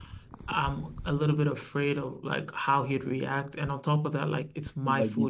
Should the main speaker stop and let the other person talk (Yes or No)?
No